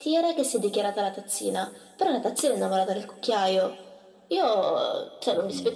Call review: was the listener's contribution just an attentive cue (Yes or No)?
Yes